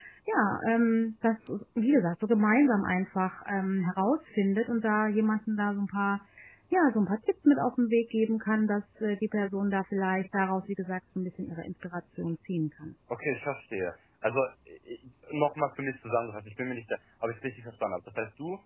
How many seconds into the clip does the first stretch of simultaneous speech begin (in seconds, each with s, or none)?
none